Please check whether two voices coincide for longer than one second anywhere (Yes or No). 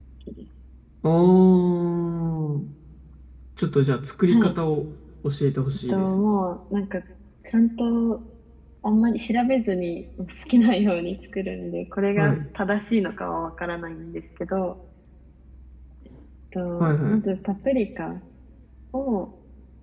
No